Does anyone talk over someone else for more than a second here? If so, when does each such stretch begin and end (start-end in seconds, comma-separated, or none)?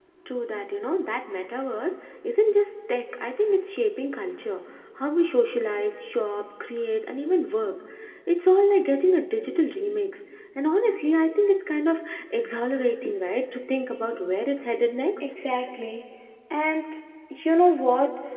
none